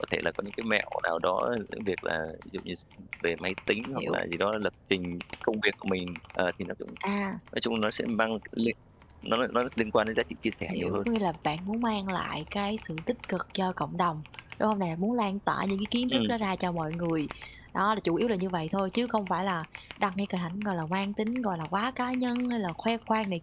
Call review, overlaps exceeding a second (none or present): none